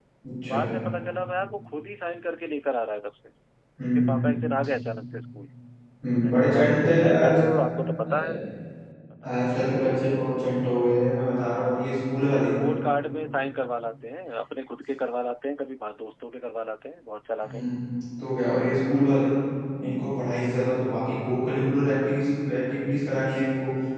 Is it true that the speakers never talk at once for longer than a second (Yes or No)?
No